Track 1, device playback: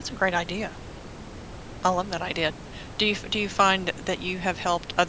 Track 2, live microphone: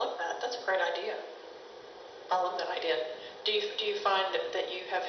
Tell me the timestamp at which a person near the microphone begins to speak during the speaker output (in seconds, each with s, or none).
none